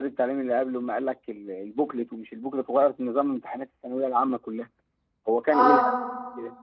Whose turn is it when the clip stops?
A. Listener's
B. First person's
B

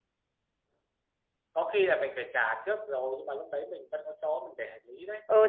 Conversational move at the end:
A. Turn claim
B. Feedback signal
A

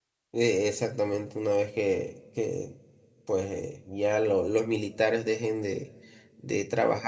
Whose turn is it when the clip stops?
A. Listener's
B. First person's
B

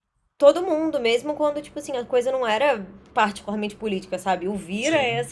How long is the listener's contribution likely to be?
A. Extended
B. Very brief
B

